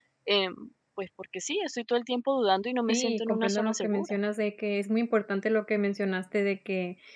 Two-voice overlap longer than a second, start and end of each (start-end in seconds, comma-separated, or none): 2.9-4.1